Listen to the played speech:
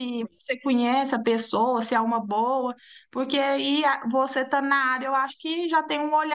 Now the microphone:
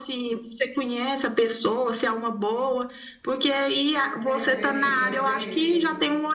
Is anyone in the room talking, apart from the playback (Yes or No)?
Yes